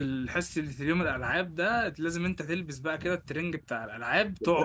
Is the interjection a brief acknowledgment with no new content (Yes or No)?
No